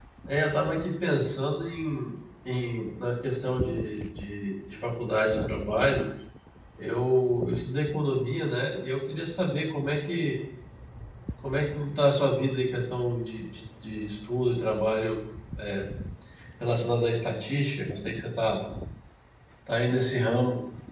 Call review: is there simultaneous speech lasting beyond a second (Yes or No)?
No